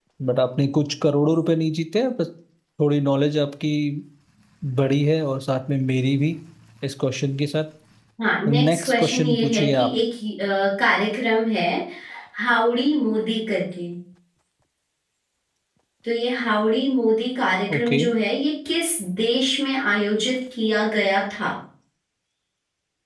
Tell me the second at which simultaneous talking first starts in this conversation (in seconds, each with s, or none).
8.5 s